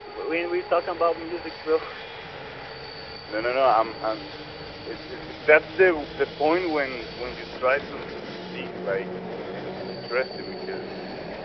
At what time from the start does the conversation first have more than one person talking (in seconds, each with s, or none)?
none